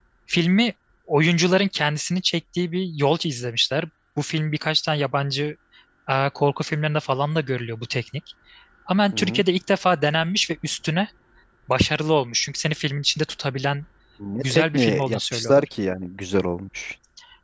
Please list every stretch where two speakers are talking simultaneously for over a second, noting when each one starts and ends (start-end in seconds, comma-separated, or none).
14.4-15.7